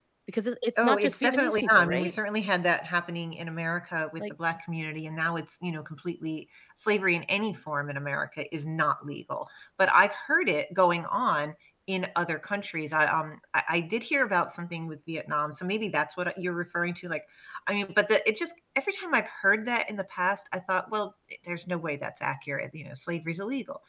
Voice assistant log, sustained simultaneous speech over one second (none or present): present